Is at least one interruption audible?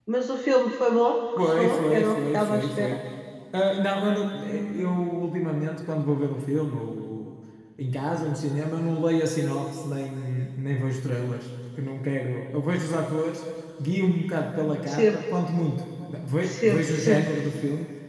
Yes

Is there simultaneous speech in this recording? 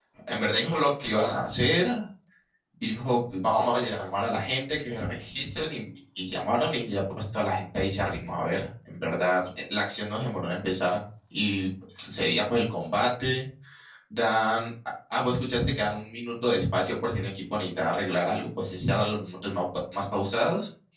No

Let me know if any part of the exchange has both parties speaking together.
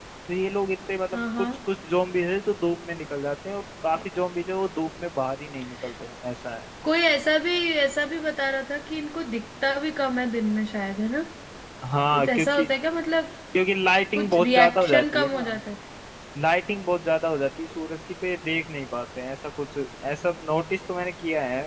Yes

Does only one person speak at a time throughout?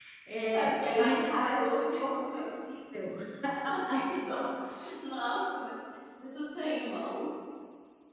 No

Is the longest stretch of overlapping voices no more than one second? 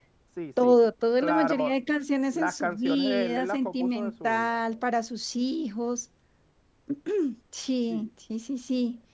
No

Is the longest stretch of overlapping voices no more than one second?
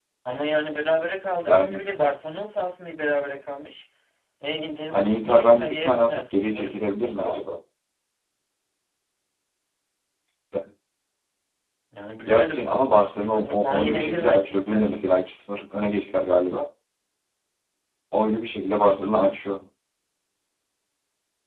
No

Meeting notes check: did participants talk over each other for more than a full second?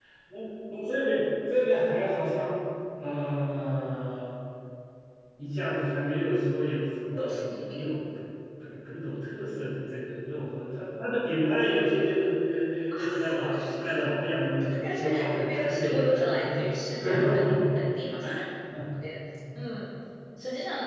Yes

